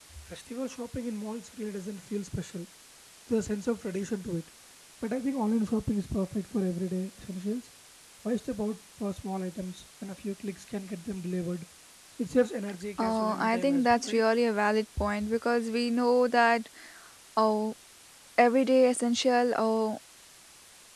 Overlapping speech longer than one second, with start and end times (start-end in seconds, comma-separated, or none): 13.0-14.2